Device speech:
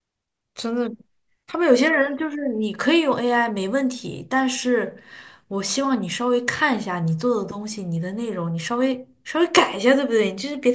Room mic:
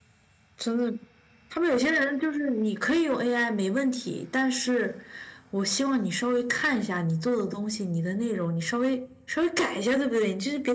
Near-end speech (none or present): none